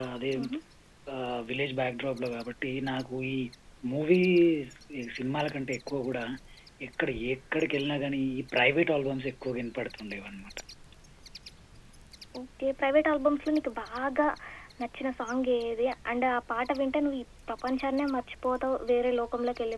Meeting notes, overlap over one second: none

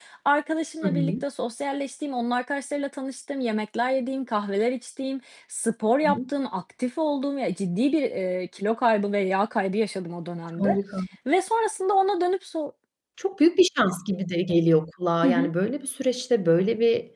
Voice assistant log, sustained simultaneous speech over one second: none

